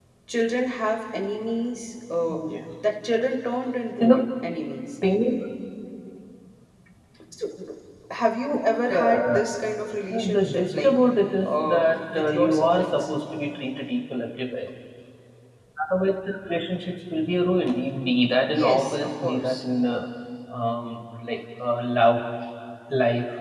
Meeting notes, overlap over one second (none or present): present